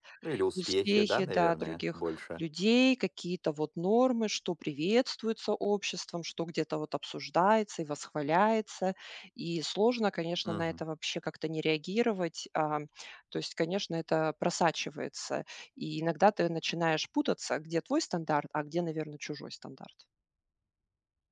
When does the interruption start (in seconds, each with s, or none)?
0.6 s